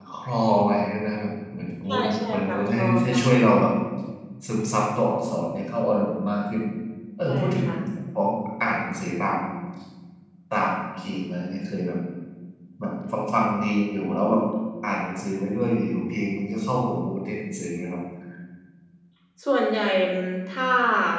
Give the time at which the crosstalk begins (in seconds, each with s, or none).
1.9 s